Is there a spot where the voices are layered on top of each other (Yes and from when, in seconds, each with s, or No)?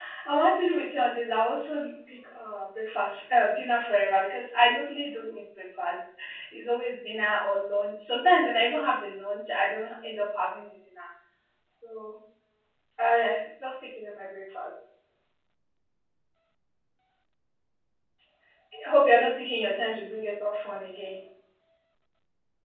No